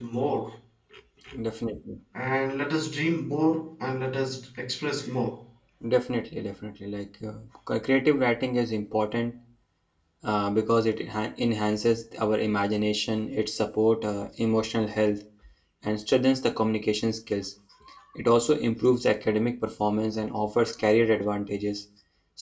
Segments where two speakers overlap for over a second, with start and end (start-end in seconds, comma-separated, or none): none